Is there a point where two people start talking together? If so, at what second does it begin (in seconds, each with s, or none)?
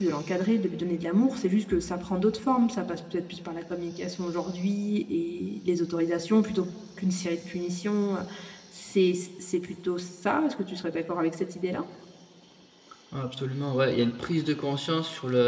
none